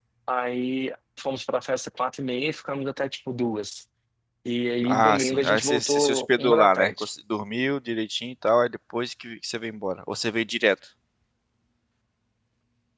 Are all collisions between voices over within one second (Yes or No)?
No